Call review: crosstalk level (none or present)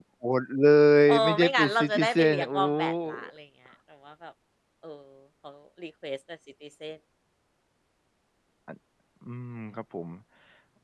present